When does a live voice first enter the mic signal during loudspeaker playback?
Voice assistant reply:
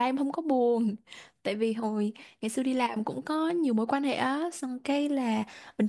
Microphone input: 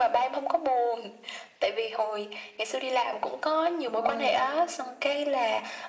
4 s

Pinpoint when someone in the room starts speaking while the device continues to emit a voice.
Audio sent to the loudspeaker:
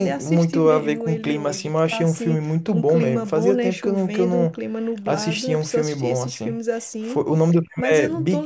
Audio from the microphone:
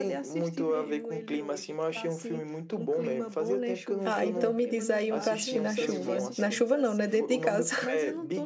4 s

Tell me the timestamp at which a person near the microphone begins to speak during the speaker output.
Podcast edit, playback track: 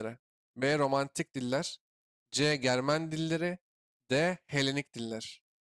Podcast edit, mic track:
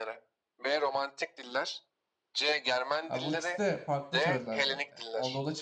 3 s

